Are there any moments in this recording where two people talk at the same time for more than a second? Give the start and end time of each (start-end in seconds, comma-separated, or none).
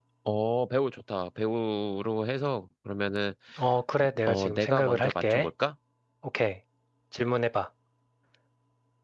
4.3-5.5